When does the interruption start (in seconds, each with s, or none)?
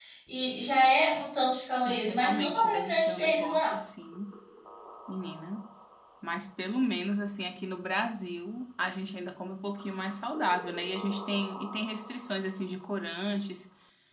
1.9 s